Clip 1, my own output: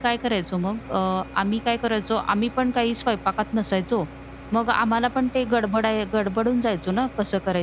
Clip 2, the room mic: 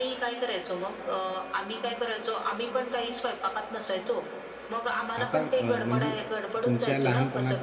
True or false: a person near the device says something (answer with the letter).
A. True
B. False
A